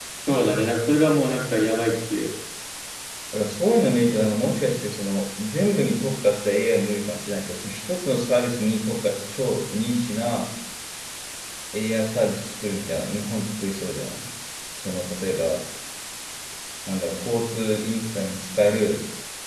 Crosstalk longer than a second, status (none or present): none